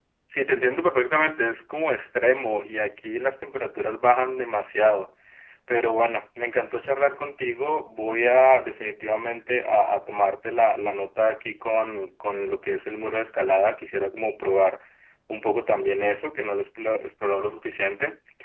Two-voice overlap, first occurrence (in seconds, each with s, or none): none